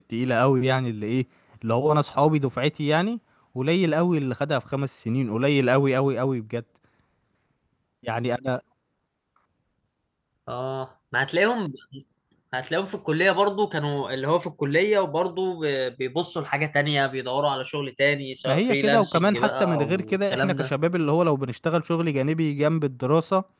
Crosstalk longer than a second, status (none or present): present